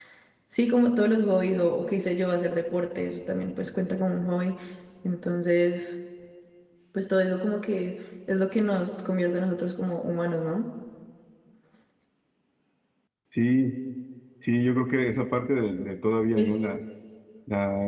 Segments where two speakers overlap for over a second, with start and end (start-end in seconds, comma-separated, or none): none